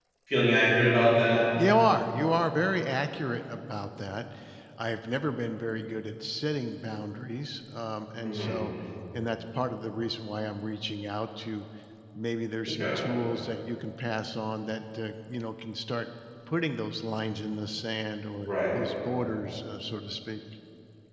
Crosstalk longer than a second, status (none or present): none